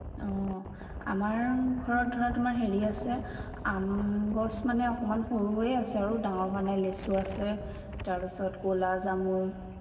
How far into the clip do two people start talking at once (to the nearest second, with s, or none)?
none